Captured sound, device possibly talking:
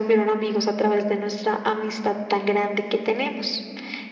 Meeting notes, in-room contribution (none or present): none